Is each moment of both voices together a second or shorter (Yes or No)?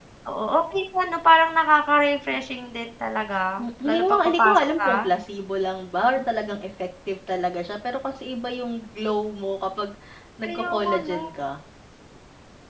No